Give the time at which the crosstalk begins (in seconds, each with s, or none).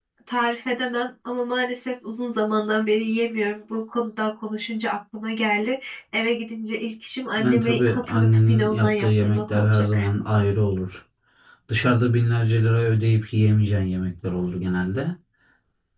7.4 s